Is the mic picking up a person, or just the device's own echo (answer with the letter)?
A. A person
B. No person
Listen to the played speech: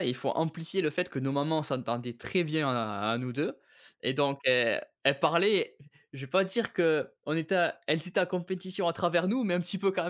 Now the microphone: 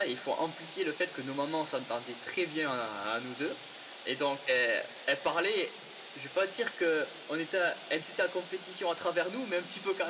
B